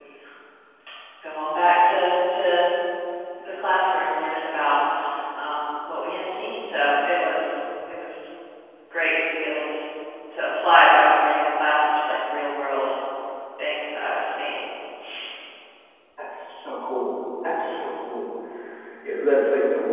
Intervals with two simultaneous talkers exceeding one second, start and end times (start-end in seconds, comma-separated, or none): none